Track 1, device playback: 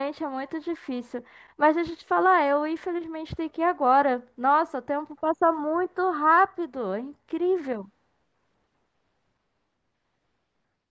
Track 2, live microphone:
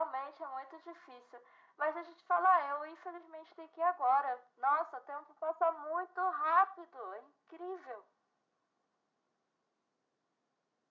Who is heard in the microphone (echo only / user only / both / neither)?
echo only